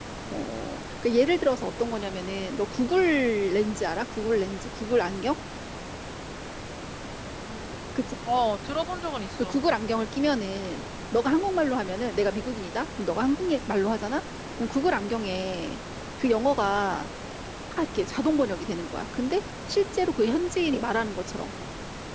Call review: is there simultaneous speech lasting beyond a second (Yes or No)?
No